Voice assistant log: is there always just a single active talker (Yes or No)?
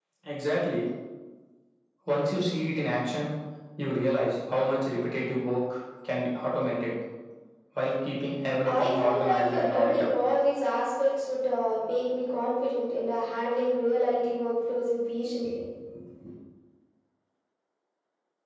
No